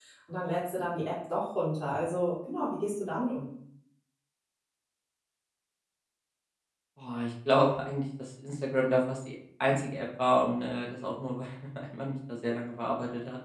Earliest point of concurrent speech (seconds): none

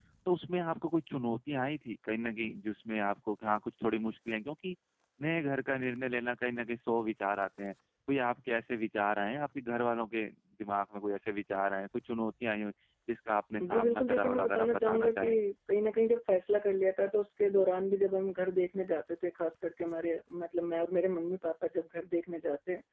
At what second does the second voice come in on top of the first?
13.6 s

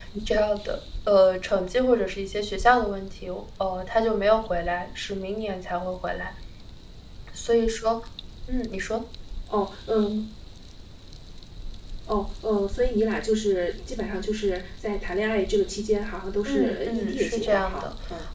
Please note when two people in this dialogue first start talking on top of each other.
16.4 s

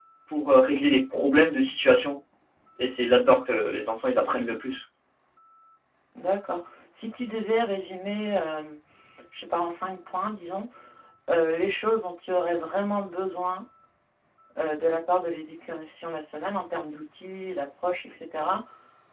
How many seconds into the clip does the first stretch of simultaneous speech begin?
none

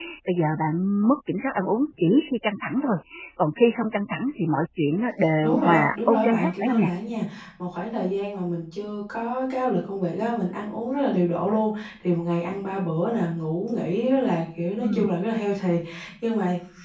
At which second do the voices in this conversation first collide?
5.4 s

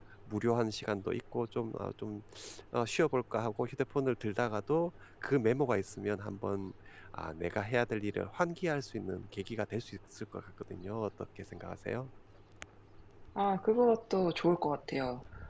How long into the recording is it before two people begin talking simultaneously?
none

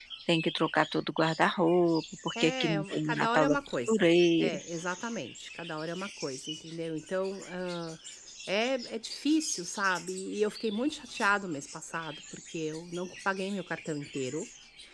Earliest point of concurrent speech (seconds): 2.4 s

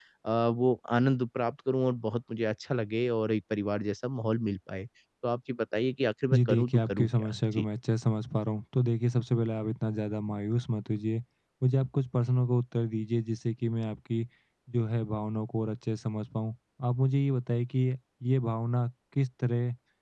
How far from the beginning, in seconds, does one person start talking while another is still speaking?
6.3 s

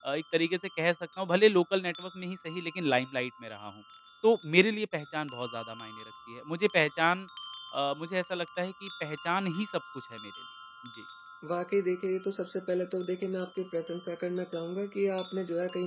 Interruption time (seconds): none

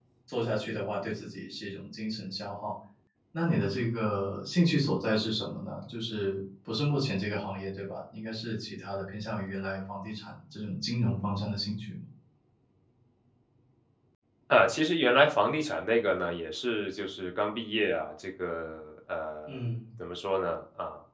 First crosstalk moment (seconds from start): none

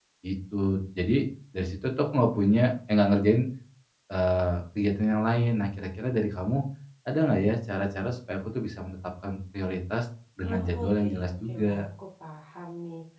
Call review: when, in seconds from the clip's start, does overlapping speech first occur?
10.5 s

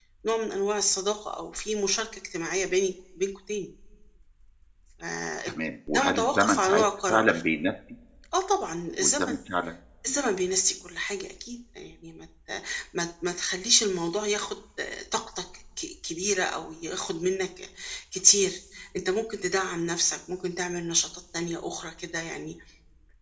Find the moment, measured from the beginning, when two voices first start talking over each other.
5.9 s

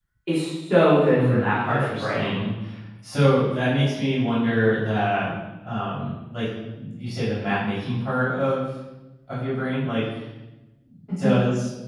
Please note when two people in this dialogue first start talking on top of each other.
1.1 s

